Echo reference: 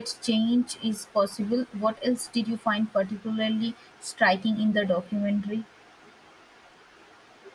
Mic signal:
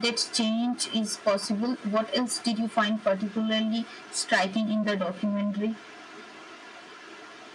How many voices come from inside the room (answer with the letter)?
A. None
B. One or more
A